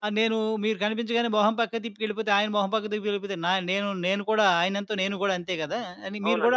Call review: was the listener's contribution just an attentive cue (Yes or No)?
No